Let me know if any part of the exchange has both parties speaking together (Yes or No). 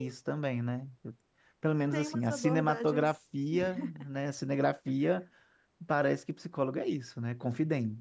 Yes